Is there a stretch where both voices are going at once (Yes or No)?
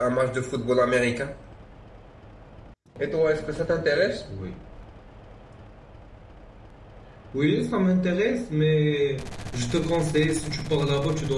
No